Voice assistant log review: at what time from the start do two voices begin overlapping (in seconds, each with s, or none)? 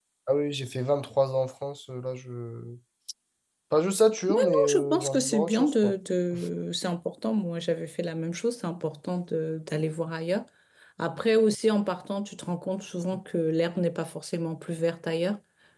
4.3 s